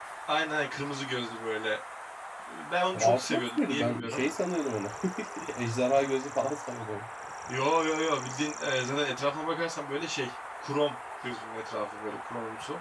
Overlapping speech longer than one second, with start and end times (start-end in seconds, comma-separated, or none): 2.9-4.2